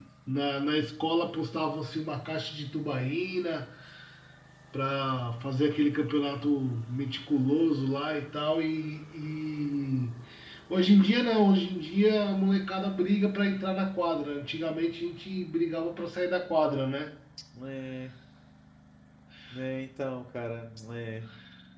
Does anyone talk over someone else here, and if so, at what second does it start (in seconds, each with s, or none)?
none